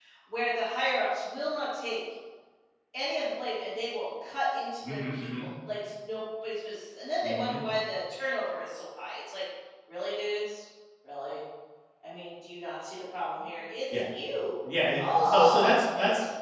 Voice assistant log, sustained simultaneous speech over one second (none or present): present